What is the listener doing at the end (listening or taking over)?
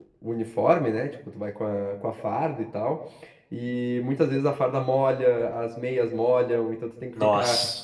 listening